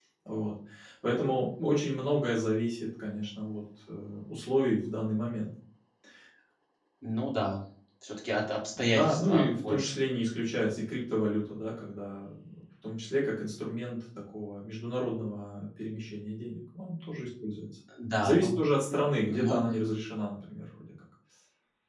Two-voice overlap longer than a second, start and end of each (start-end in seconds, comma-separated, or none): 8.8-10.0